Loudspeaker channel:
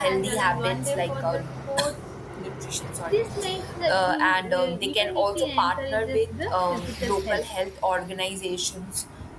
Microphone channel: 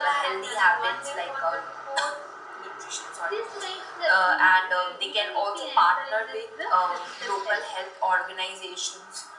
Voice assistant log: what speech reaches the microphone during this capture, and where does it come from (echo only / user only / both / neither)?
echo only